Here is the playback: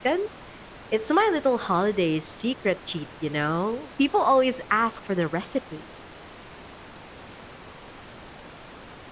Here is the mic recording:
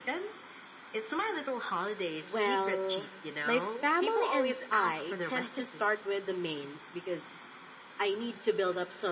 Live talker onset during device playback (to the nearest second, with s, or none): 2 s